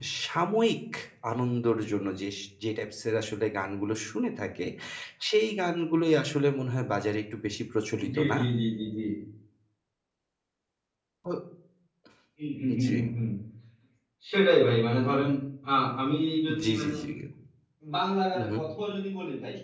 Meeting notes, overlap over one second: none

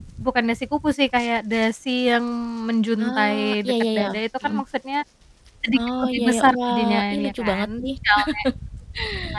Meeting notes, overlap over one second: present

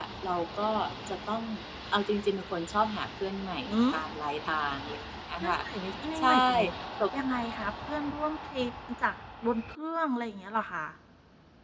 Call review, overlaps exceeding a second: none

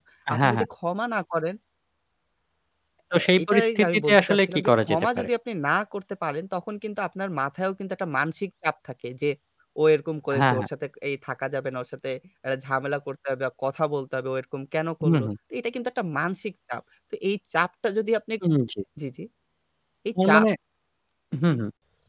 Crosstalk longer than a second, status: present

